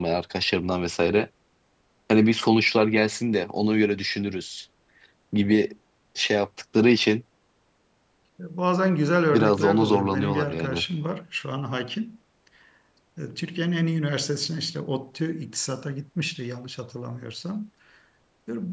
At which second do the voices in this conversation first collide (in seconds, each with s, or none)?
9.3 s